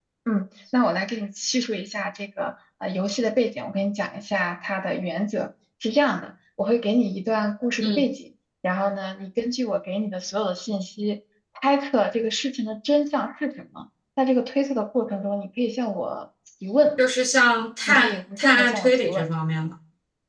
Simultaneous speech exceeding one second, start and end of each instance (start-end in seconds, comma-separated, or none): 17.9-19.3